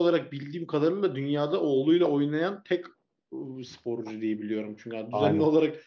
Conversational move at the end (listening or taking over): listening